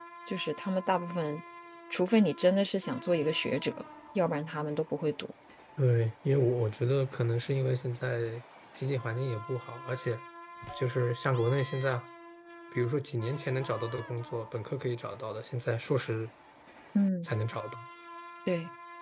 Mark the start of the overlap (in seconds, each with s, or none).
none